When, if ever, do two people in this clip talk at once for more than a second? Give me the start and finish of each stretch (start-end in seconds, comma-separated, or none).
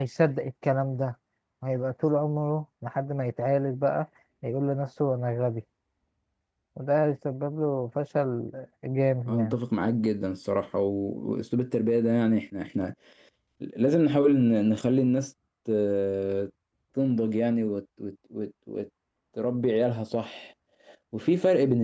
none